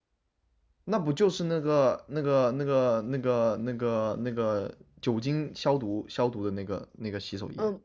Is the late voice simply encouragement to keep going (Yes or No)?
No